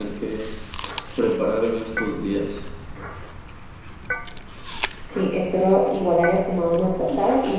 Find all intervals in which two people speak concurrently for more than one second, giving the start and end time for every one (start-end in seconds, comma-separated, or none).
none